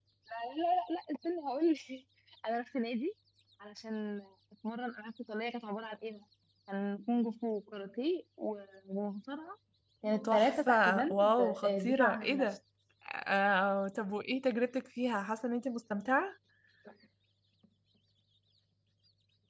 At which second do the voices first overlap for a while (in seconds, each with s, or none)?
10.2 s